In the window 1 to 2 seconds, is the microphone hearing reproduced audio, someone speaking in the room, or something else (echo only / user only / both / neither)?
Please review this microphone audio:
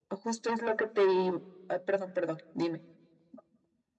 echo only